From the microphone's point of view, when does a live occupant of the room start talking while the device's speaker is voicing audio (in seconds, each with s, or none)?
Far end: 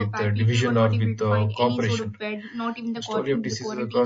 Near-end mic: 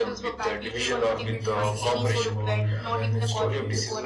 1.1 s